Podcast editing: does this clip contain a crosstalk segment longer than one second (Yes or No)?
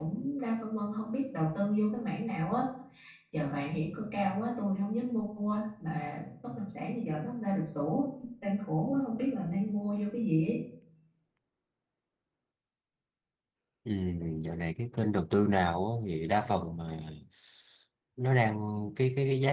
No